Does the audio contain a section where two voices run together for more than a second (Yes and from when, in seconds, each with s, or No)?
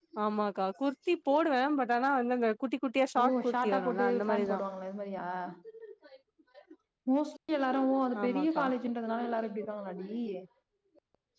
Yes, from 3.2 s